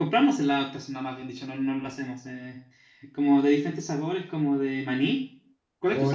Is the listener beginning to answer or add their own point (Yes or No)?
Yes